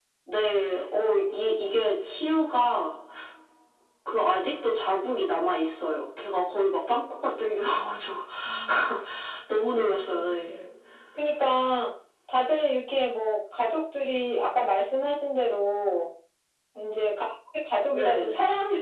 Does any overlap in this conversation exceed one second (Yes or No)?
No